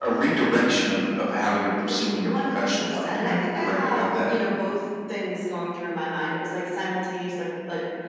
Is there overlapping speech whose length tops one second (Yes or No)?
Yes